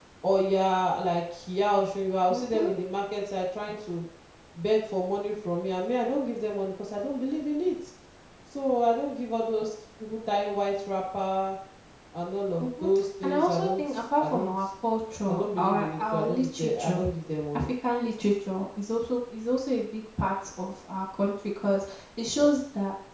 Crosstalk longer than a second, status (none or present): present